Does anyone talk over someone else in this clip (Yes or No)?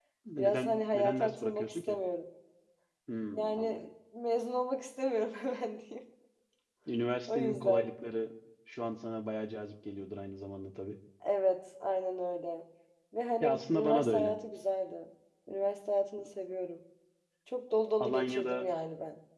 Yes